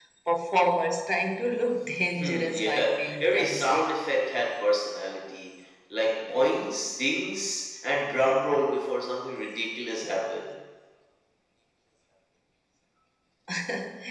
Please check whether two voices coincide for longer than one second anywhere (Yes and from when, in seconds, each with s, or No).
Yes, from 2.2 s